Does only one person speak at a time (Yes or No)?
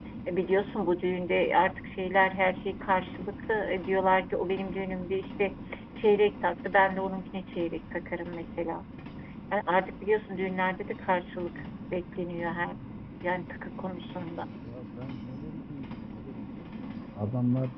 Yes